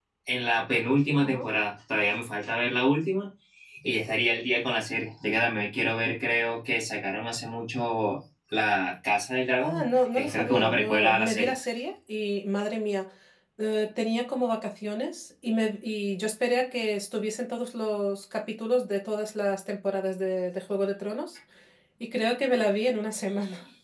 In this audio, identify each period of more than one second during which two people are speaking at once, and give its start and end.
9.6-11.5

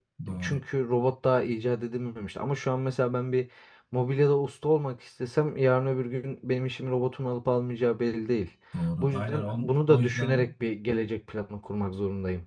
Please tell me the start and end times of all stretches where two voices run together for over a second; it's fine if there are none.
9.0-10.4

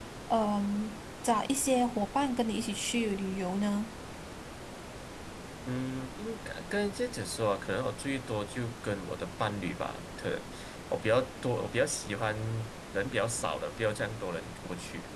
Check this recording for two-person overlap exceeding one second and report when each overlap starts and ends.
none

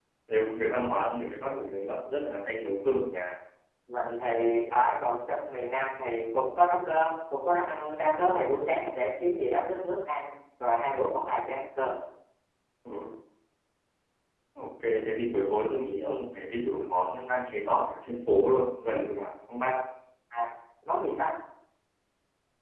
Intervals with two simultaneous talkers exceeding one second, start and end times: none

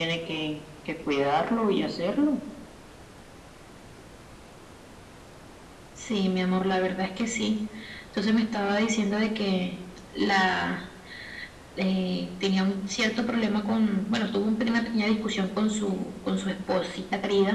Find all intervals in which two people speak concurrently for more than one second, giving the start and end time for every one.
none

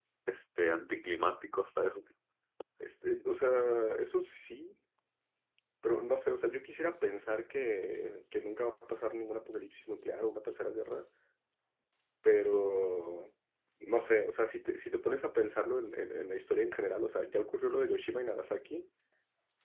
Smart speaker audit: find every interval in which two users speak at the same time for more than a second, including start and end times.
none

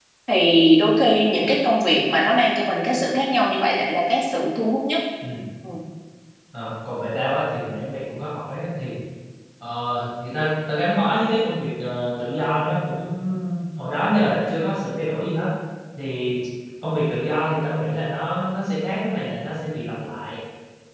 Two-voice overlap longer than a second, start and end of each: none

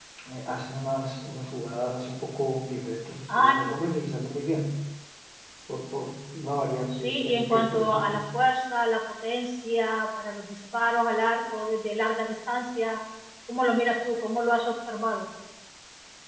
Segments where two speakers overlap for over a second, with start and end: 7.0-8.2

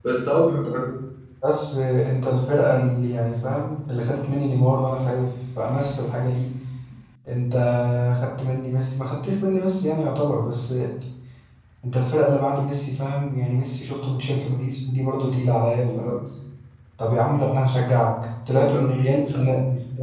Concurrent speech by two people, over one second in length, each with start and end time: none

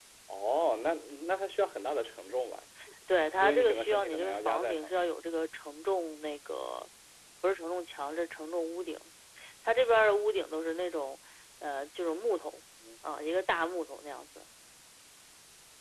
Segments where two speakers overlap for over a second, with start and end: 3.4-5.0

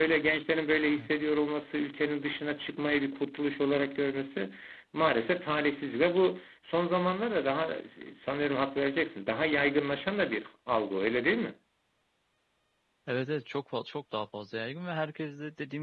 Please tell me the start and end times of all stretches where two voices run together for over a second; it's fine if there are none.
none

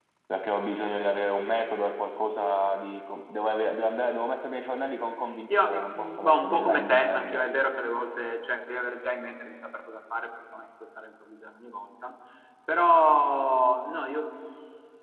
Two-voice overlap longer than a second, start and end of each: 5.5-7.5

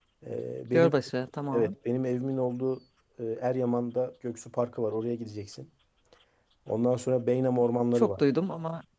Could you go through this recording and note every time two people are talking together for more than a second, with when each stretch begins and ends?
none

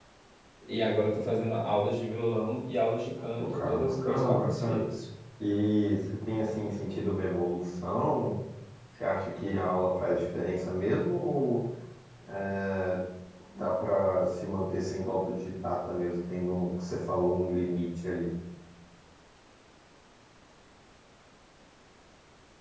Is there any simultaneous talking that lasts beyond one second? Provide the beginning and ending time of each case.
3.4-4.8

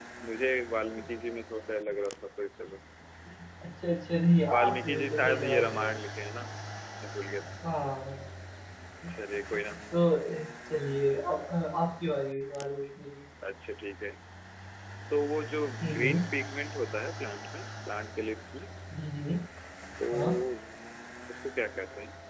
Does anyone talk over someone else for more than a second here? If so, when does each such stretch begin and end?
4.5-5.9

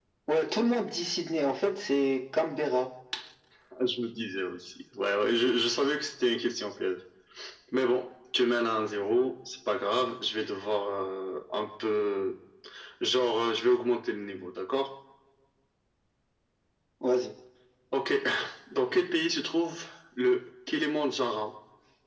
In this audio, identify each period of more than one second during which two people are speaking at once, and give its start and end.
none

